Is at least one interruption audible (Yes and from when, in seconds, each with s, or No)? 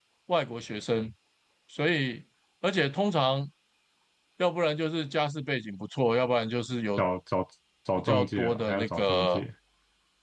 Yes, from 8.0 s